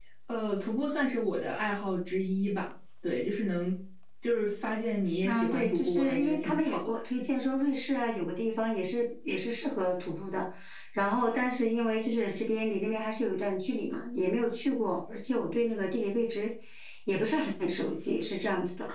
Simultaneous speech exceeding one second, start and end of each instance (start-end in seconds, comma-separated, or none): 5.2-7.0